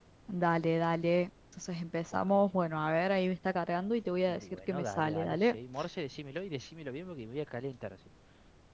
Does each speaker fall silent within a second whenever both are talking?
No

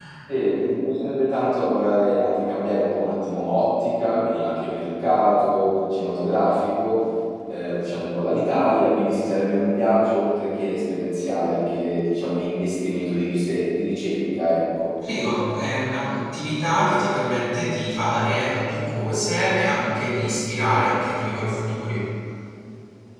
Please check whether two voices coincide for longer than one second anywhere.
No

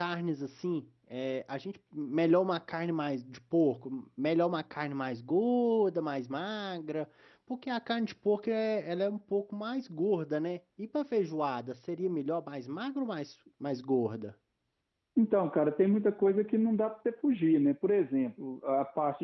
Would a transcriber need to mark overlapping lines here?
No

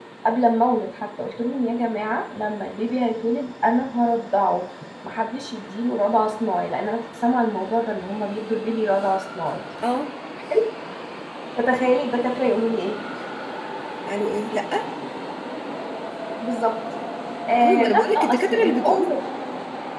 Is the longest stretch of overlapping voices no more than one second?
No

